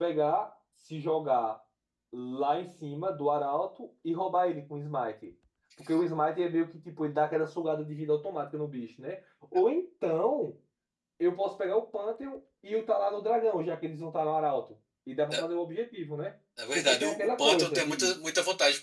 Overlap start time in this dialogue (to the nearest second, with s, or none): 17 s